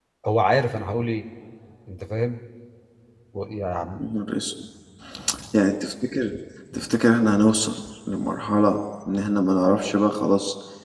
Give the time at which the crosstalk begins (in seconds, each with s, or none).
none